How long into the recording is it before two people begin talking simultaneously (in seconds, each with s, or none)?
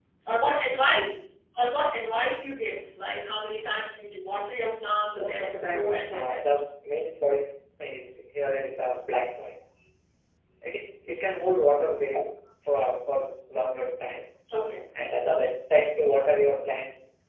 5.1 s